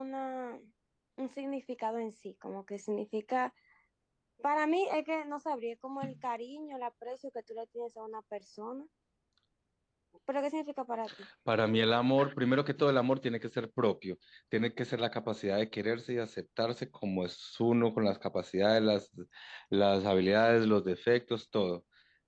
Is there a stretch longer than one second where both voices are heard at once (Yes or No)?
No